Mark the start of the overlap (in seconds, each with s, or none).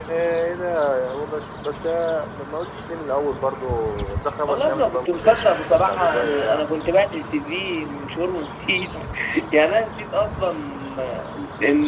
4.5 s